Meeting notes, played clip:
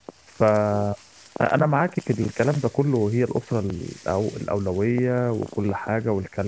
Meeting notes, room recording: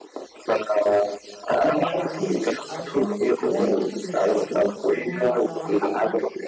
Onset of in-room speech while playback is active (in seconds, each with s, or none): 1.8 s